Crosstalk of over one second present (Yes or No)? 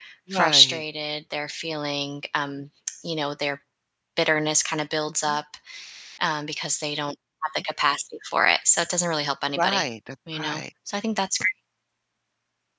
No